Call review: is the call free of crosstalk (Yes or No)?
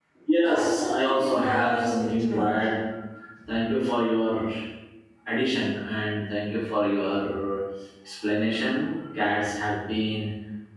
No